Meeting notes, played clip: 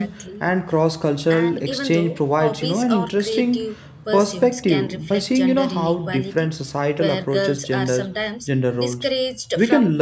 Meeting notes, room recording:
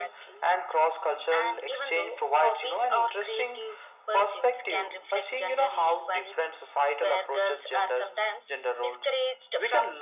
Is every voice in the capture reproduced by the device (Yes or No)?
Yes